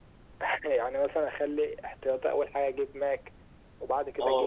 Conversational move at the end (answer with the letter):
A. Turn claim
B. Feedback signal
A